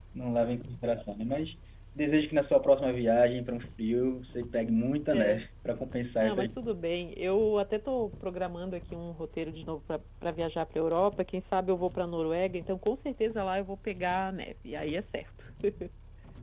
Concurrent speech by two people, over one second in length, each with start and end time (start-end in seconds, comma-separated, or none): none